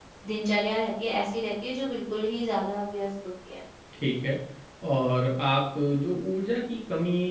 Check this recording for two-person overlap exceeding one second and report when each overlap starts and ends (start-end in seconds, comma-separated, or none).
none